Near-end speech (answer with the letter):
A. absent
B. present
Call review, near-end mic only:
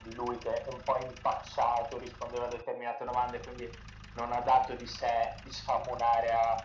A